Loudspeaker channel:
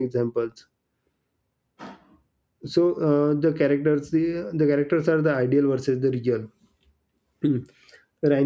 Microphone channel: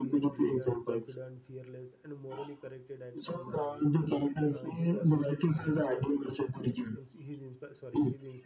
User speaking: Yes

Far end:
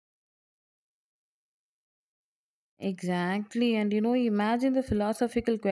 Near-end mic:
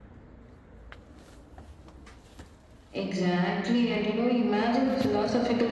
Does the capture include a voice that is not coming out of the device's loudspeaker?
No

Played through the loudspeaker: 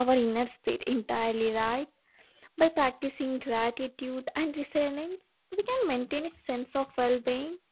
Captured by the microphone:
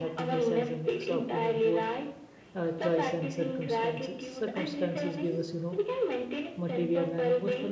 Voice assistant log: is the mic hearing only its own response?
No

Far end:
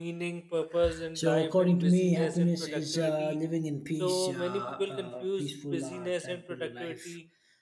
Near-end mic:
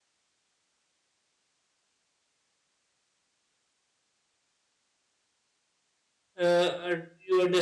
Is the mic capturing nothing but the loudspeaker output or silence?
No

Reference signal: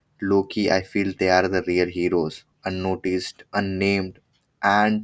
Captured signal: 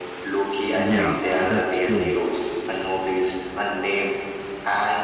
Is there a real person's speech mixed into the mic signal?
Yes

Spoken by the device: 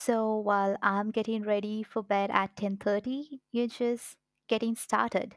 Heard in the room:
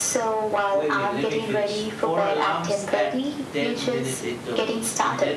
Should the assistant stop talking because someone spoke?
Yes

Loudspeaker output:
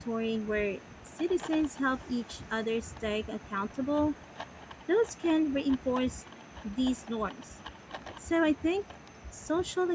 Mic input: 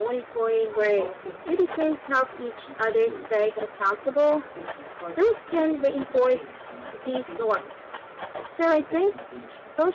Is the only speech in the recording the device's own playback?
No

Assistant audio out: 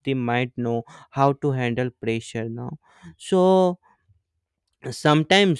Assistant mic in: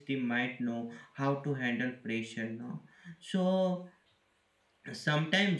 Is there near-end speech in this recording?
No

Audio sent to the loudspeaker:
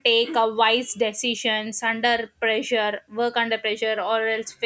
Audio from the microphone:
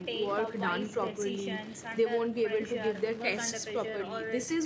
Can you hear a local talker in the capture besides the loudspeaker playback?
Yes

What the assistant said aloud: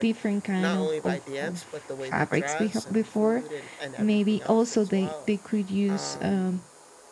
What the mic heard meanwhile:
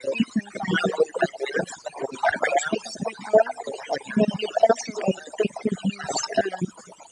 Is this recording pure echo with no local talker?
Yes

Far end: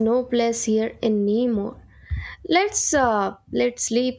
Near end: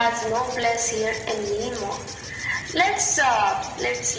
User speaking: No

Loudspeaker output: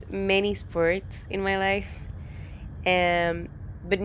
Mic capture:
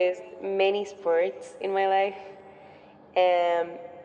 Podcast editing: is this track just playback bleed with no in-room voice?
Yes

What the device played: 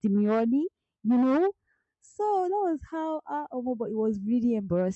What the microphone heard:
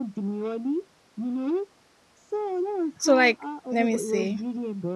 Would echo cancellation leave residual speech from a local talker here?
Yes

